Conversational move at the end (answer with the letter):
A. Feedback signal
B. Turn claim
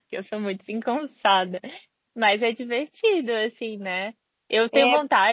A